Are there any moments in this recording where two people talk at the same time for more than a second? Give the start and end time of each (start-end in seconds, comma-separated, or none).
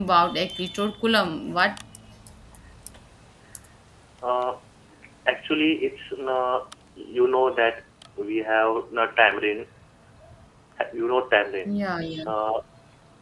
none